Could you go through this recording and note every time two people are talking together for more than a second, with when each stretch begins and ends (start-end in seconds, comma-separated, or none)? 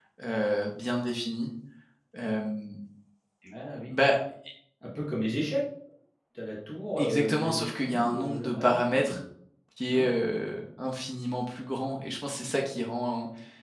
7.0-9.2